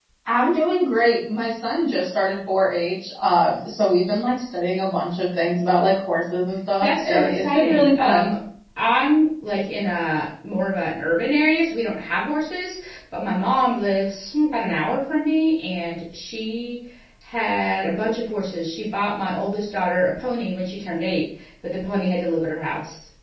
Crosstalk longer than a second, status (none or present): present